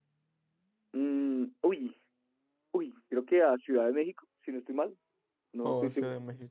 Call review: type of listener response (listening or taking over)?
taking over